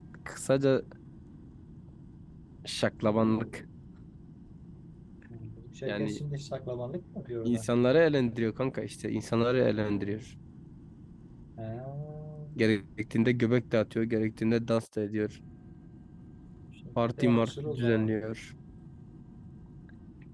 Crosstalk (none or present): present